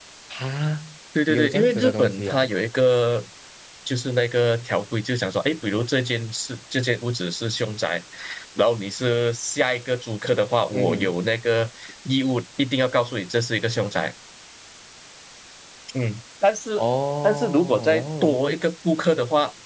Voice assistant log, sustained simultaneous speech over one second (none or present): present